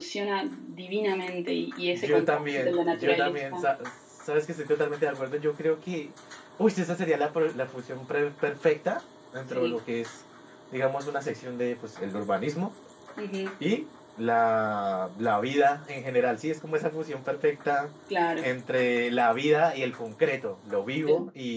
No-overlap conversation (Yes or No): No